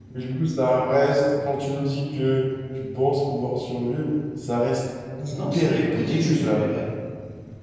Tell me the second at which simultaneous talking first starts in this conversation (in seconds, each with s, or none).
5.3 s